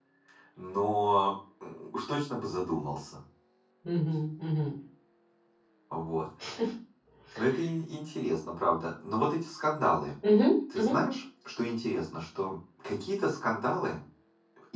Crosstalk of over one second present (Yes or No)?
No